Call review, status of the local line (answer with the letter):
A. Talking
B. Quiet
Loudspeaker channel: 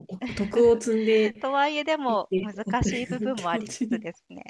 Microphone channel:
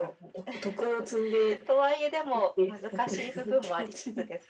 B